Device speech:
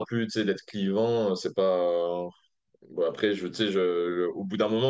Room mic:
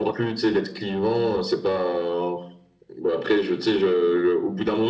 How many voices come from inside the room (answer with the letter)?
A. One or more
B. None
B